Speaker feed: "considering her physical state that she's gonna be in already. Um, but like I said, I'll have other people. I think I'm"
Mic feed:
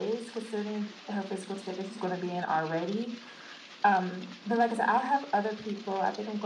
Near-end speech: none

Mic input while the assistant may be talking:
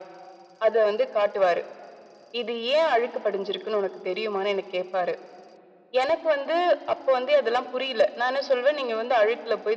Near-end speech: none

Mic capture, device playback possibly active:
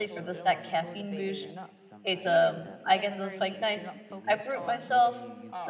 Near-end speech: present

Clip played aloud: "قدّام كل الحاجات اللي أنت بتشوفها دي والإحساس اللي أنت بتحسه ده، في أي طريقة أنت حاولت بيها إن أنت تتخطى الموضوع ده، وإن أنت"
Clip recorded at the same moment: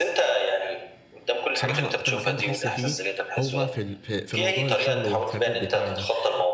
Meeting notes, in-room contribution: present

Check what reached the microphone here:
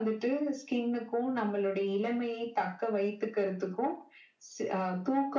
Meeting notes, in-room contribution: none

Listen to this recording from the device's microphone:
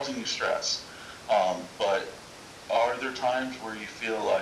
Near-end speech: none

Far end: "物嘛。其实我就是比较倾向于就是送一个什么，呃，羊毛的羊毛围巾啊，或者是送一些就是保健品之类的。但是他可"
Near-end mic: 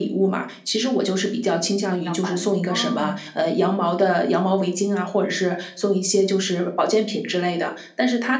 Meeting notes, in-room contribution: present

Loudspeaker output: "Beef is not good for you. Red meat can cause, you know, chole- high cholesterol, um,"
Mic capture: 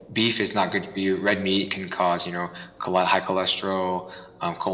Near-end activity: none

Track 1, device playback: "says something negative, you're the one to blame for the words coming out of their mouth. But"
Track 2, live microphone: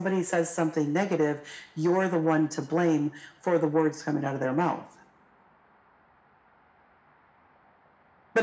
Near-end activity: none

